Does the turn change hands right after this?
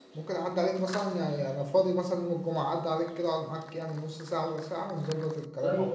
Yes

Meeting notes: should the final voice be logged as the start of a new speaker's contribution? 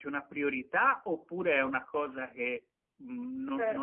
Yes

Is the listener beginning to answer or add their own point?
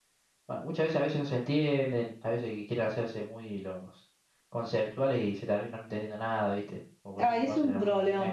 Yes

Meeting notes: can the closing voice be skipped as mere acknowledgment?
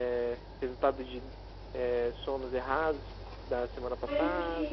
No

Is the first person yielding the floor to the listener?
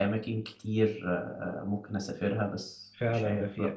Yes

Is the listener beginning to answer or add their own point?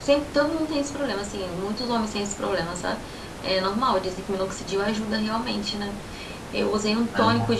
No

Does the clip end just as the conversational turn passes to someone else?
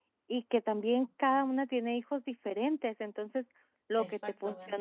No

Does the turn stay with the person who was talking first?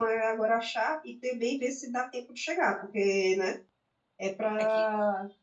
Yes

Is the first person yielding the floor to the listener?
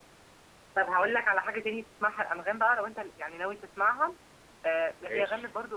No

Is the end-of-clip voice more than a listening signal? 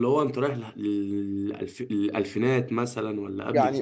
Yes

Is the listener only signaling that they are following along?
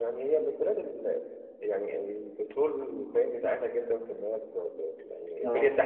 Yes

